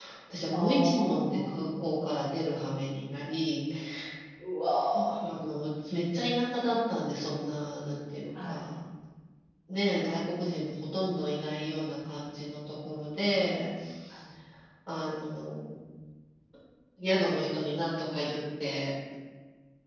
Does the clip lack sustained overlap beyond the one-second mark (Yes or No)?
No